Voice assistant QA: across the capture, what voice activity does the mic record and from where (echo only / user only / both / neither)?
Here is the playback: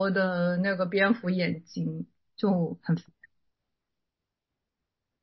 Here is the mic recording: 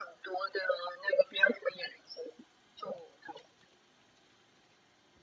echo only